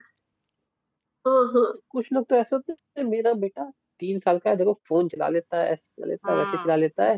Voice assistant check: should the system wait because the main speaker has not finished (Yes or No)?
Yes